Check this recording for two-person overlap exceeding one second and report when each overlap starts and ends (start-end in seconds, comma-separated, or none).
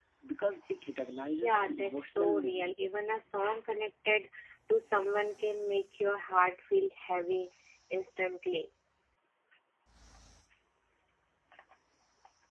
1.4-2.7